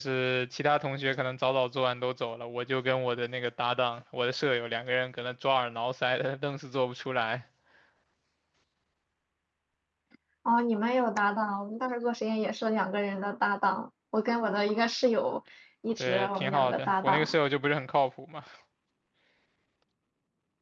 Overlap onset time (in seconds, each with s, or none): 16.0 s